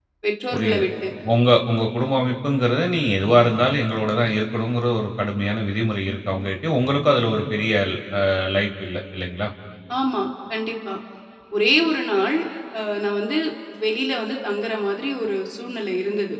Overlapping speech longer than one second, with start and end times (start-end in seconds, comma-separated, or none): none